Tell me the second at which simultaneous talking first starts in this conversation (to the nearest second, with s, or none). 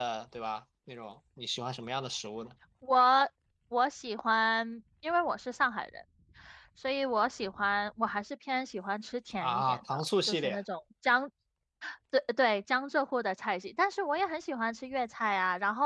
9 s